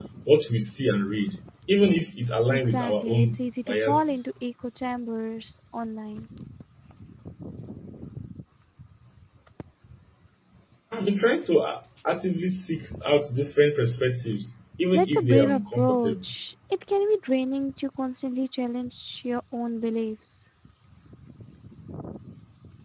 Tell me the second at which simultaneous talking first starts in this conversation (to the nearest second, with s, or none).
2 s